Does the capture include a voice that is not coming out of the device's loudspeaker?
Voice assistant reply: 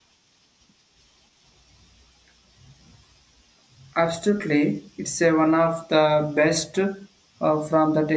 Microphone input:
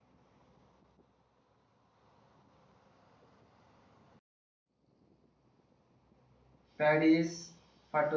Yes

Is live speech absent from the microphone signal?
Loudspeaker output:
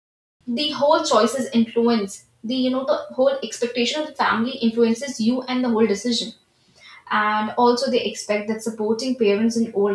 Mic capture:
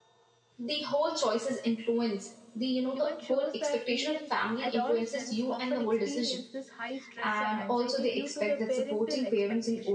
No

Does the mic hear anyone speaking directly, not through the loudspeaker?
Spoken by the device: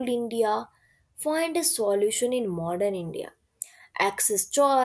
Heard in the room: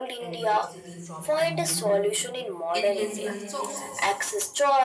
Yes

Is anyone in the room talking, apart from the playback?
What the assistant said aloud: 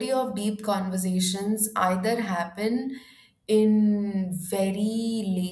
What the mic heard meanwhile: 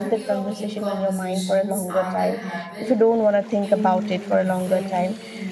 Yes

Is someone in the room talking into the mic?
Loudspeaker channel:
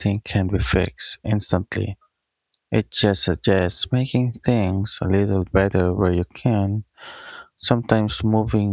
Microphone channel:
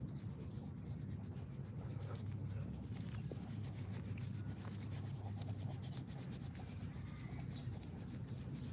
No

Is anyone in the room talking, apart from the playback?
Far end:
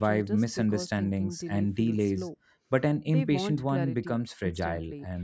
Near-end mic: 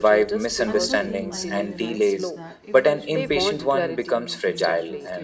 Yes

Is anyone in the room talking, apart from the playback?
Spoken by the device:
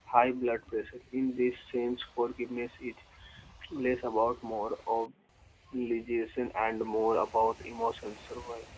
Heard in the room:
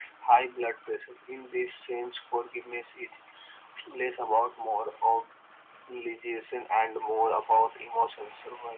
No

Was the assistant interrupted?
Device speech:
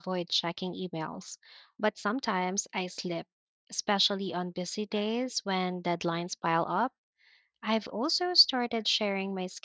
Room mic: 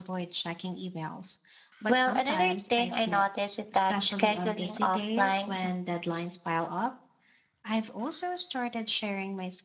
Yes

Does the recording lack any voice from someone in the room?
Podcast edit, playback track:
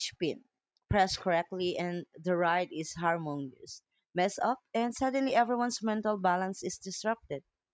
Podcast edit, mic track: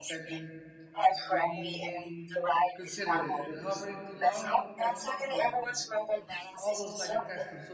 No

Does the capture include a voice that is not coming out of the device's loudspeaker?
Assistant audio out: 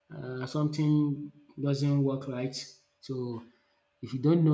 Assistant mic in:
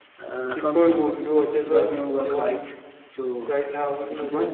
Yes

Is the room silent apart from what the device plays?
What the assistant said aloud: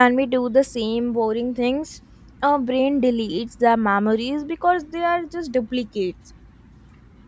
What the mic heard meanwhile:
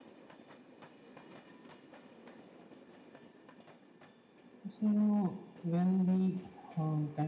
No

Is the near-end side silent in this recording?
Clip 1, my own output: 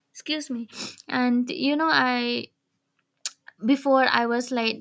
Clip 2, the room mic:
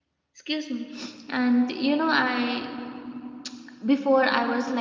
Yes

